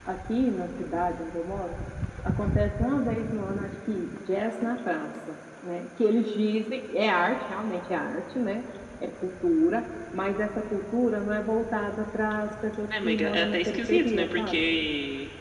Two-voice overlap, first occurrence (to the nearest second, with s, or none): 13 s